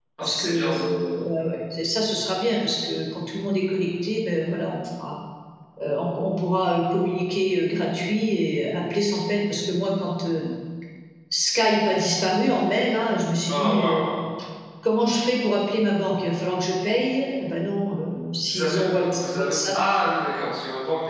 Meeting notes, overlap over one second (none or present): present